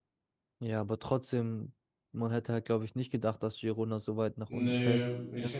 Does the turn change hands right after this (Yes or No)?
Yes